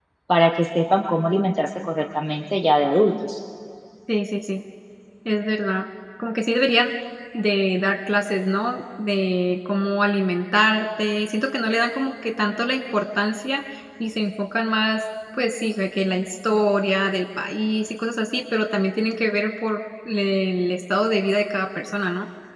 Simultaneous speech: No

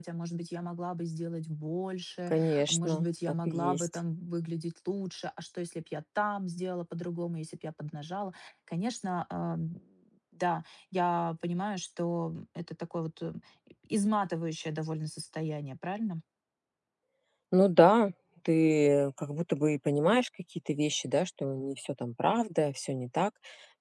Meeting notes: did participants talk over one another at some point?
Yes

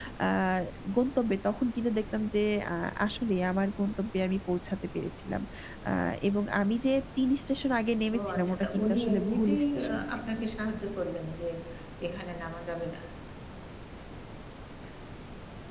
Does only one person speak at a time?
No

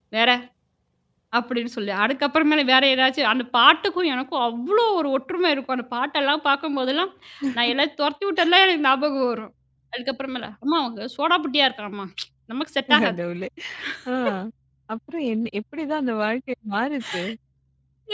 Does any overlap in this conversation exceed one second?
No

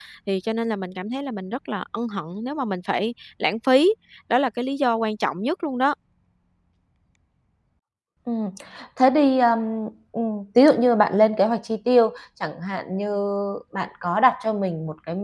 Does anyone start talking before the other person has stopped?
No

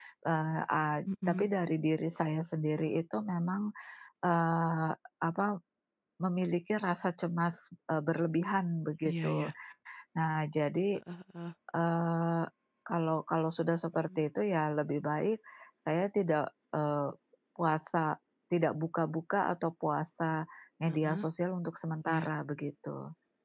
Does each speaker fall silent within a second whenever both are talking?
Yes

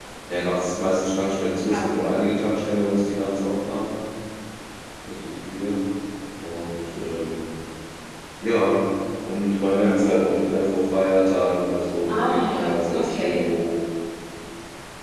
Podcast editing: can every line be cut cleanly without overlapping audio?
No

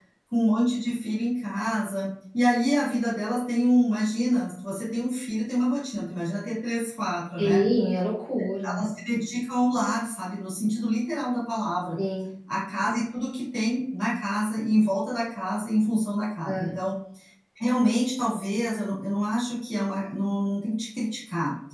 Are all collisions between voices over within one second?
Yes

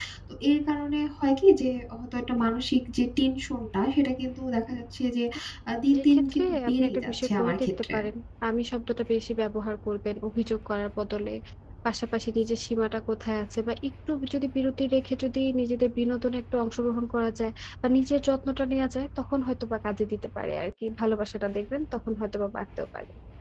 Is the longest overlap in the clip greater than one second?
Yes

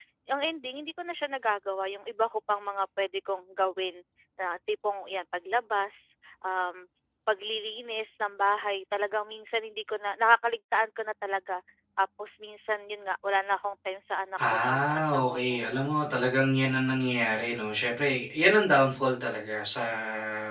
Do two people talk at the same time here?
Yes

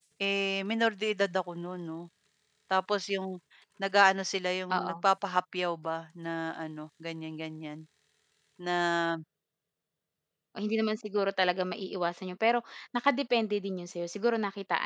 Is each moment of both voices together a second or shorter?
Yes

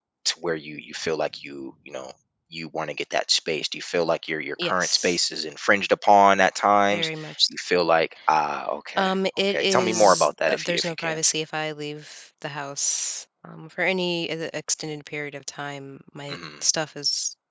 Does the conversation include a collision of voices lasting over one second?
Yes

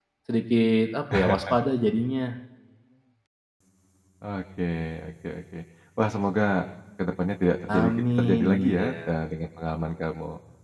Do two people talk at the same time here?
Yes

